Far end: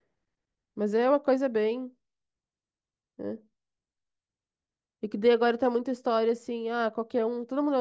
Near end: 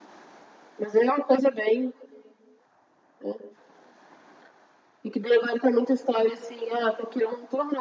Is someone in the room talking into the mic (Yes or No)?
No